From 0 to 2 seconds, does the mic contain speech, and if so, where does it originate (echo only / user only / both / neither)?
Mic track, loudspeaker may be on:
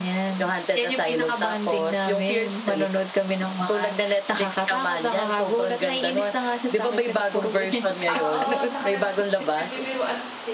echo only